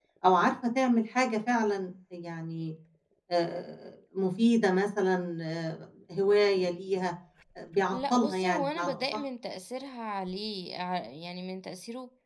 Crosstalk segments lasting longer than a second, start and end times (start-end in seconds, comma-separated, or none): 7.9-9.2